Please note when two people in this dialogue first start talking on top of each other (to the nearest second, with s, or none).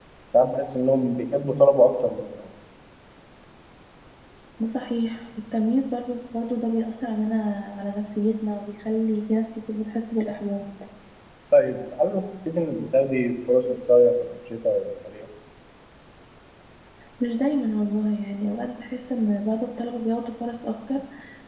none